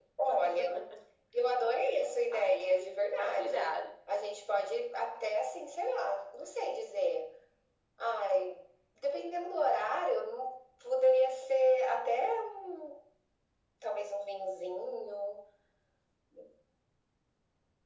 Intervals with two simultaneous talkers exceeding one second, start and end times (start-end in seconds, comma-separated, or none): 2.3-3.8